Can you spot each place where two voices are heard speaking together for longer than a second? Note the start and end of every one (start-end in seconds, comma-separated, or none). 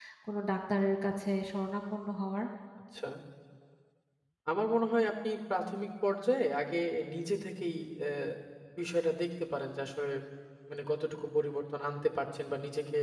none